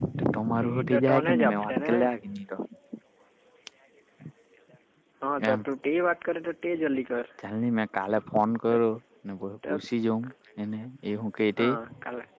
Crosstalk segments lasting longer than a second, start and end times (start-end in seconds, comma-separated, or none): 0.7-1.9